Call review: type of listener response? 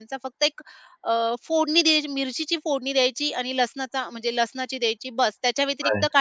listening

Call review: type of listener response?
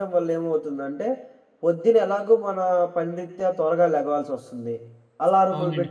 listening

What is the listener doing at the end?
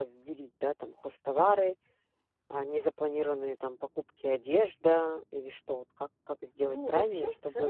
taking over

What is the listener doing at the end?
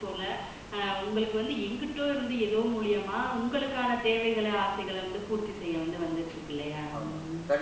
taking over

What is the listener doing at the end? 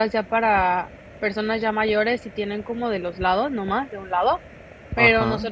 listening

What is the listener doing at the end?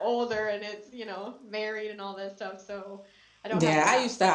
taking over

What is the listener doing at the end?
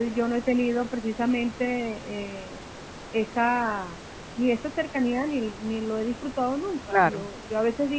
listening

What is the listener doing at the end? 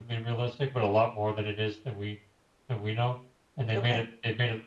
listening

